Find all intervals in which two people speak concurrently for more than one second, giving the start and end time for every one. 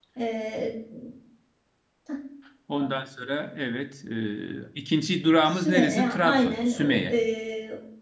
5.5-7.1

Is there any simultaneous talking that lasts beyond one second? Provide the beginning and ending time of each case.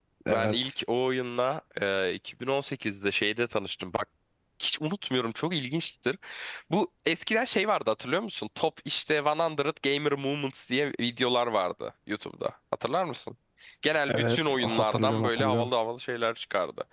14.1-15.7

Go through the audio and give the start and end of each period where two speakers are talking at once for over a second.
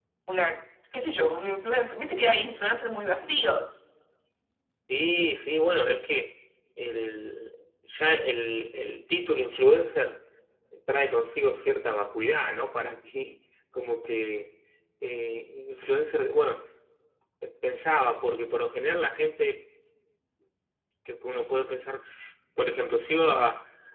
none

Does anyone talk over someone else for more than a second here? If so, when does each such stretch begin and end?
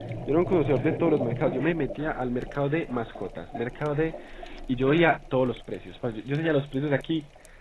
none

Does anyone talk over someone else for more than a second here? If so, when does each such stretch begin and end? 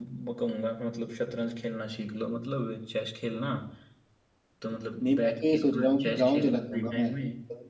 5.0-7.1

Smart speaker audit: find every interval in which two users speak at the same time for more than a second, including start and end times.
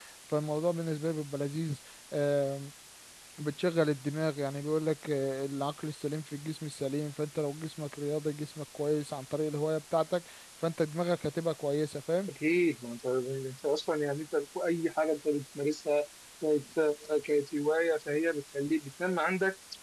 none

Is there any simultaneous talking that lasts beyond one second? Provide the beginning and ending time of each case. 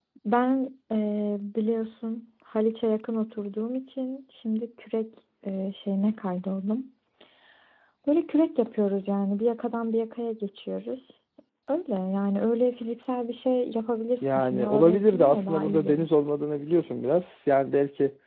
14.2-16.1

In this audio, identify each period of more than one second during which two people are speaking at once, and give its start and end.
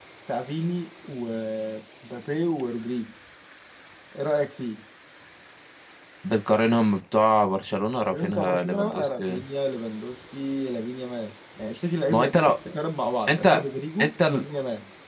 8.1-9.4

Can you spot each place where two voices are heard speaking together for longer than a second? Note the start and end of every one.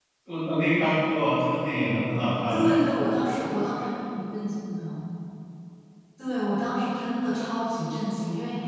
none

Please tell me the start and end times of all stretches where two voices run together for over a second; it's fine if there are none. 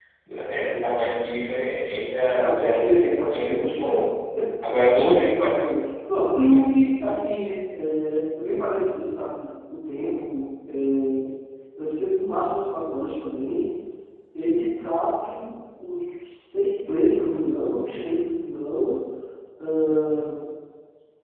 2.3-3.8

